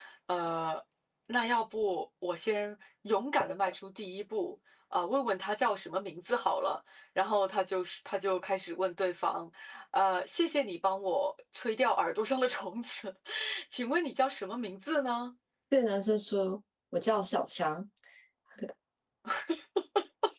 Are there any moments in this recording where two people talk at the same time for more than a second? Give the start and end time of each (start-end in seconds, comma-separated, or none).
none